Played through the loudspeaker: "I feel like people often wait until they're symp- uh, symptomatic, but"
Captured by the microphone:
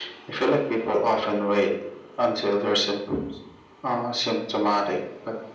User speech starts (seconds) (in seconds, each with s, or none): none